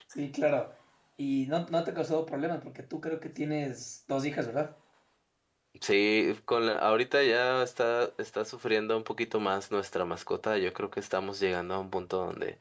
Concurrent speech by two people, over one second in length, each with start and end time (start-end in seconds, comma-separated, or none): none